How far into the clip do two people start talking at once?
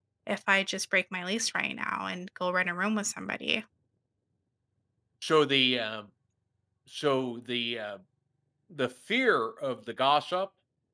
none

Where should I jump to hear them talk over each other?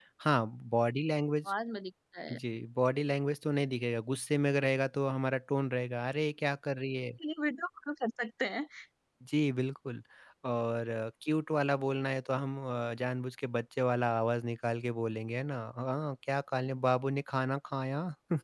none

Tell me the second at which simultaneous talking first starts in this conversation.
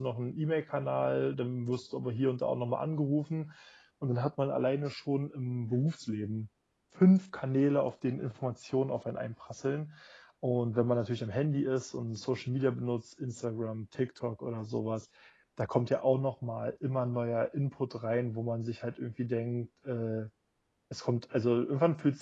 none

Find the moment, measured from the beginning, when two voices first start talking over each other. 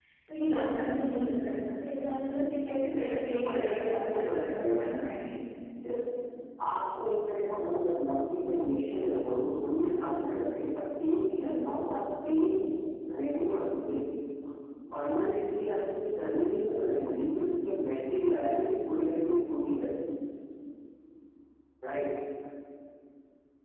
3 s

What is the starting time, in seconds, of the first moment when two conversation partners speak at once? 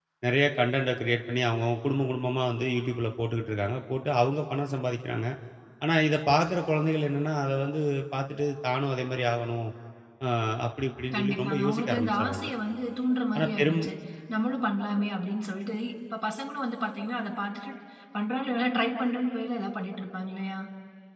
11 s

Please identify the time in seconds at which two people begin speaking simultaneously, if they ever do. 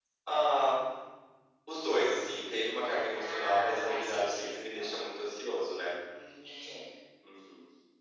3 s

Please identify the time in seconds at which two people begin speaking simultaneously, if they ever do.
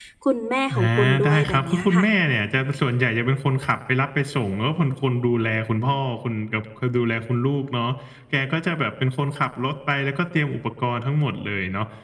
1 s

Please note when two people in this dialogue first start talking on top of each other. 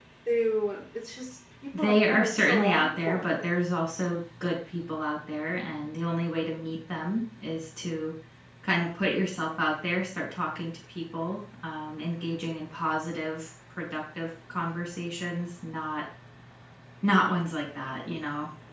2 s

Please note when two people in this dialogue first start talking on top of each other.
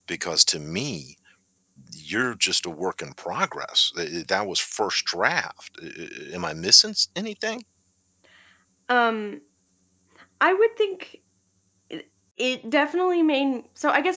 none

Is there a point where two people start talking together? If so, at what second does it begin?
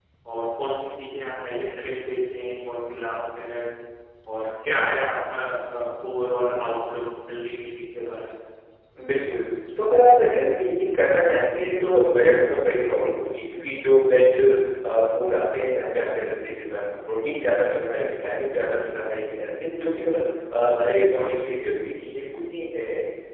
none

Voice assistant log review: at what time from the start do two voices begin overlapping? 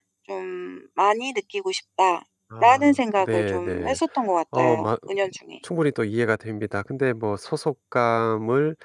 3 s

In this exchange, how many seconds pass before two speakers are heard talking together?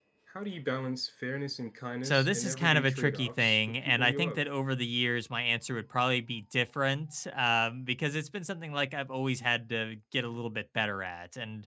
2 s

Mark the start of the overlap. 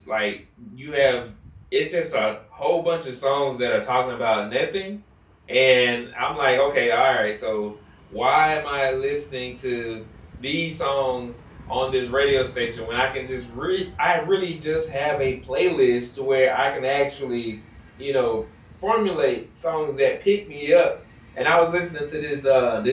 none

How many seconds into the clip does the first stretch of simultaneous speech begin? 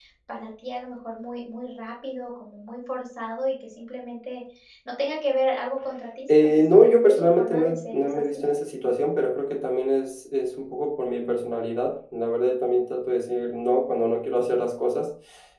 6 s

